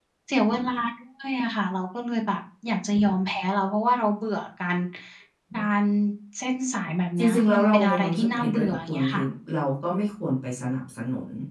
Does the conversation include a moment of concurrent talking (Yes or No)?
Yes